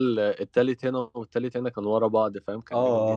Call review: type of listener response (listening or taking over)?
taking over